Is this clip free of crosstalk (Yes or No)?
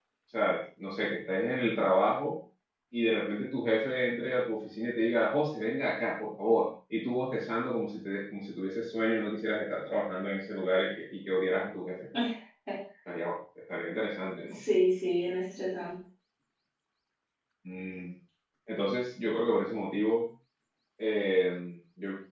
Yes